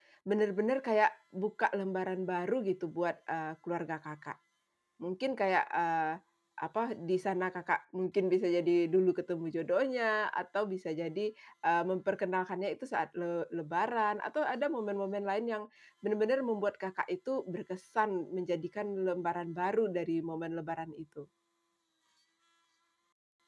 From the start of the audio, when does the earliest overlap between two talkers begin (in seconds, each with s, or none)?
none